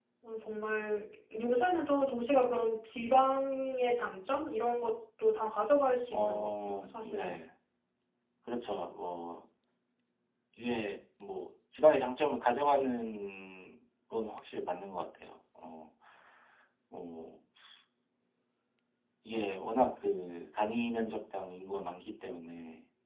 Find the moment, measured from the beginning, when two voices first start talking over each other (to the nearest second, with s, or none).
6 s